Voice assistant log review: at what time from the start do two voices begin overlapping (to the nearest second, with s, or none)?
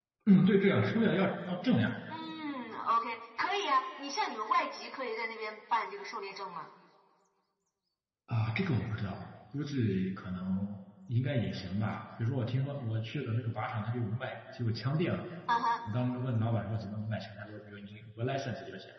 none